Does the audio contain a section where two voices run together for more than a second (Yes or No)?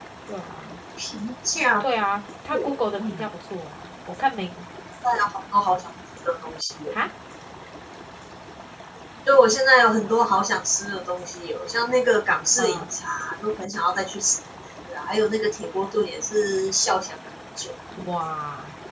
No